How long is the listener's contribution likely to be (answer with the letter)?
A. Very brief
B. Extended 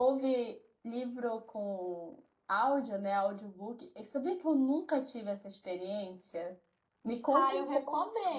B